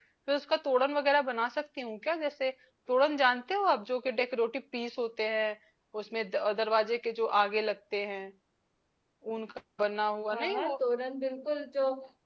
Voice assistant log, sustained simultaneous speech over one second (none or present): none